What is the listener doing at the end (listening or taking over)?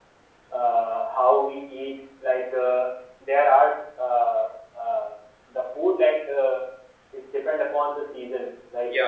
listening